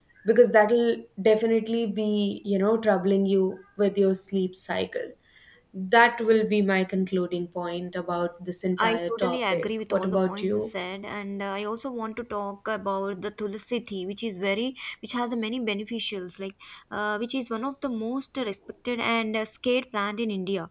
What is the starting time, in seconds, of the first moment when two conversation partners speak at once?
8.8 s

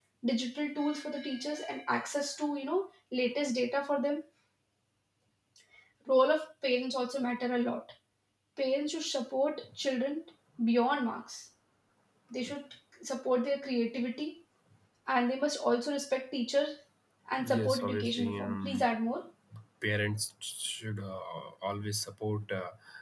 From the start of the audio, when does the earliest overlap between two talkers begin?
17.4 s

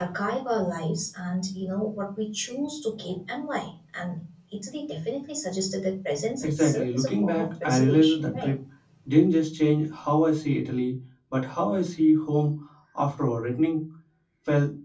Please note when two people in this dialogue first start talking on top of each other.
6.4 s

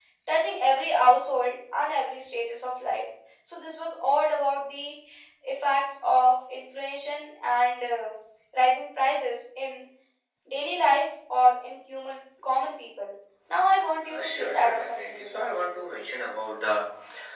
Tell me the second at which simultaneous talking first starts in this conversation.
14.1 s

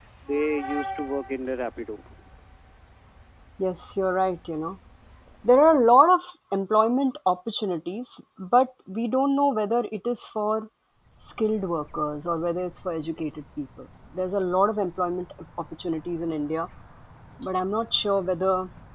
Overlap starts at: none

